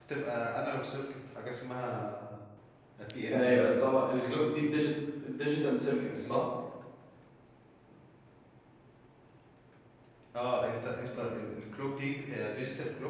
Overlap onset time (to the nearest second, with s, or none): 3 s